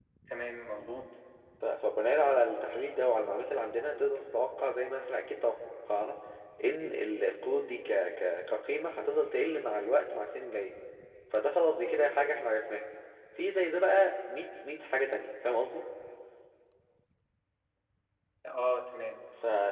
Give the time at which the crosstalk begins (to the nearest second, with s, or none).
none